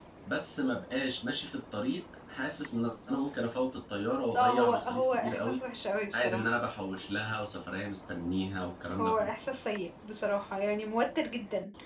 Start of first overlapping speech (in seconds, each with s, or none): 4.4 s